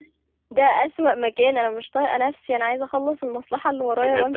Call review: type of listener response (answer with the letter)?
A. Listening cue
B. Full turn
B